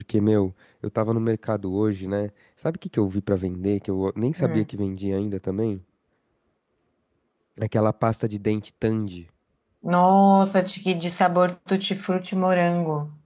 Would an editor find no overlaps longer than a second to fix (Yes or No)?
Yes